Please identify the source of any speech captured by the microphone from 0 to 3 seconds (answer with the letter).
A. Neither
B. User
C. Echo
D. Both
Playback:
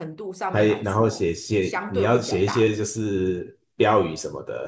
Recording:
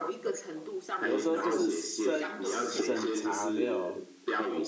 D